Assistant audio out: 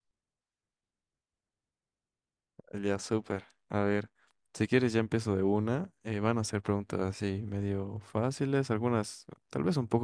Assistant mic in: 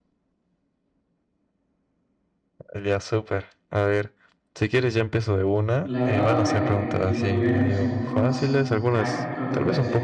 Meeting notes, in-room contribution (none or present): present